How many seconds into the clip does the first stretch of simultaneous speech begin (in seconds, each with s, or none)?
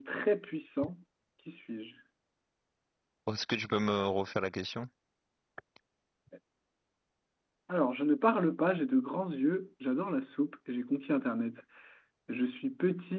none